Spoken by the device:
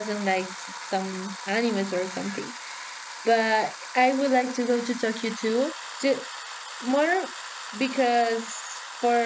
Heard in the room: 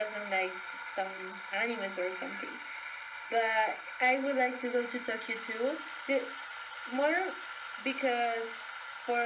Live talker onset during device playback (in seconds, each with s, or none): none